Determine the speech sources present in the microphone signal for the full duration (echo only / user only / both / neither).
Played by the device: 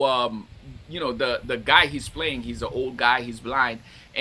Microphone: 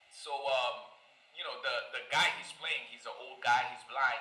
echo only